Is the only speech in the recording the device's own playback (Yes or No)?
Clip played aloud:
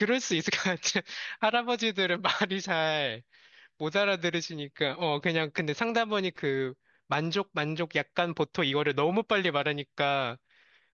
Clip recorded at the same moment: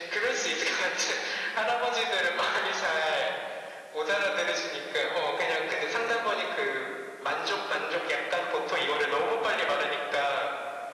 Yes